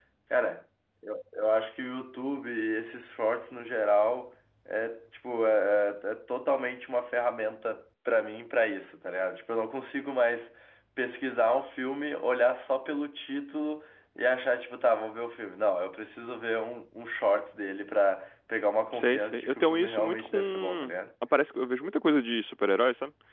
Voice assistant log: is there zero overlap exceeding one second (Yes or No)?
No